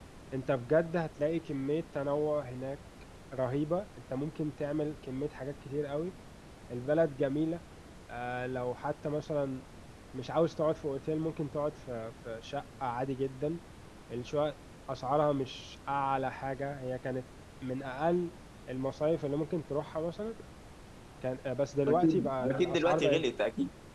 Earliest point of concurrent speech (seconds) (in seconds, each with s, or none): 21.9 s